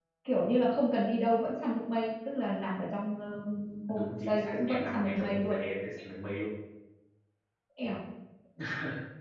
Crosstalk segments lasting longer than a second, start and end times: 3.9-5.6

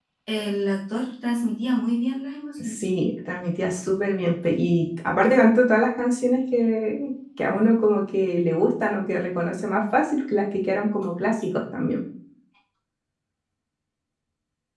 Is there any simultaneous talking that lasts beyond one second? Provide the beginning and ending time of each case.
none

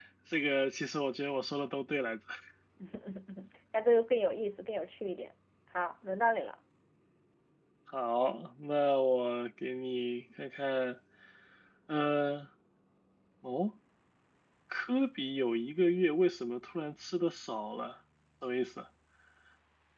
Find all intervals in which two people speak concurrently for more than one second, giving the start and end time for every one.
none

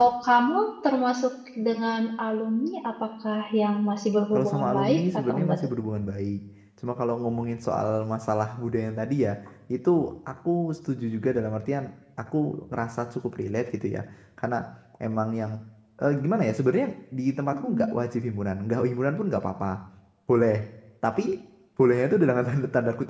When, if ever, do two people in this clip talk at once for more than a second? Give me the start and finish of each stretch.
4.3-5.7

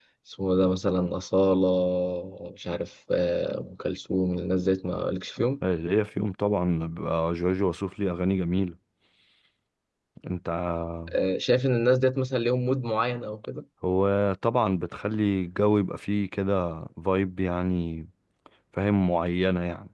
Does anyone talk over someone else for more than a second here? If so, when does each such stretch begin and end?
none

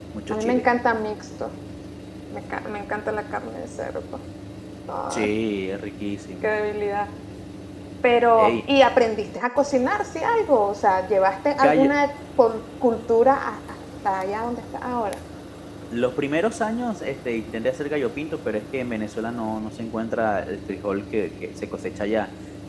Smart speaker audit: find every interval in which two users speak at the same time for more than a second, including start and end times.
none

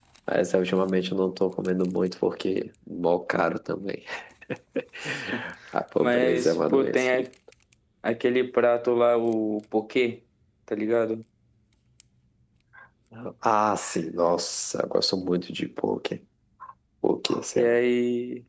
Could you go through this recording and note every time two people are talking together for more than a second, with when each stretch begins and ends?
6.0-7.2

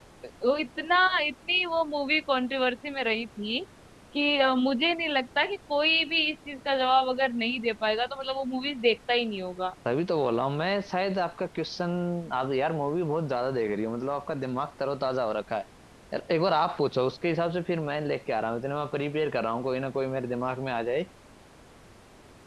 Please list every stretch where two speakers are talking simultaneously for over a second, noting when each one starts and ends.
none

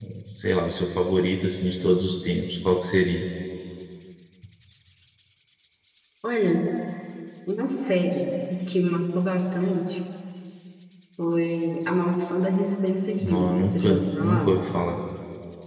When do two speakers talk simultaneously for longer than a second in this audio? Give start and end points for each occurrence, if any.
13.2-14.5

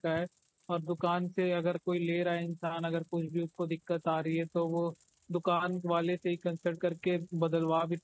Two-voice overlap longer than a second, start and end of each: none

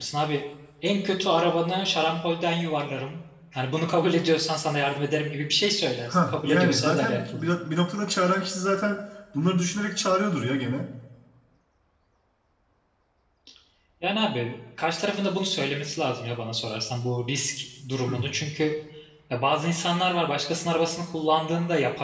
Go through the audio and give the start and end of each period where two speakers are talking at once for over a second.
6.1-7.5

